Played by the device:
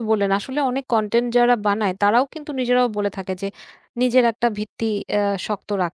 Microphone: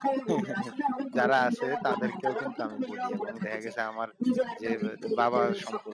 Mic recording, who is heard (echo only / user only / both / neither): both